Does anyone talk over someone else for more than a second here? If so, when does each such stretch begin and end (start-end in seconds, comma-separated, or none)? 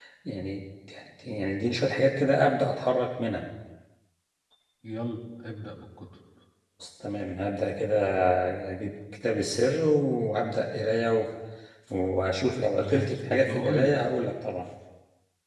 12.8-14.0